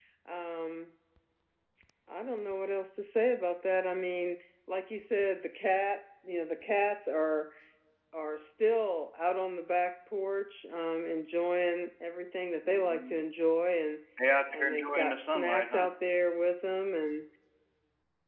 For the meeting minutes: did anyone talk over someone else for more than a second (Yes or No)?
Yes